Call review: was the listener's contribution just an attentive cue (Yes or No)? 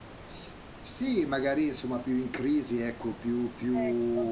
Yes